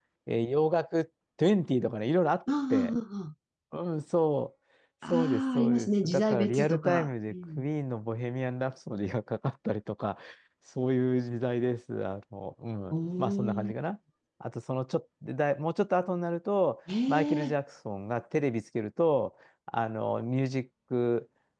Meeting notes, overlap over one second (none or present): present